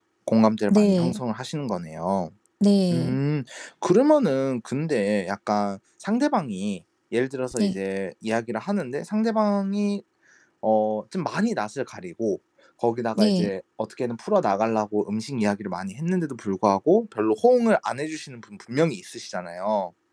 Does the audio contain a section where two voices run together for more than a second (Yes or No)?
No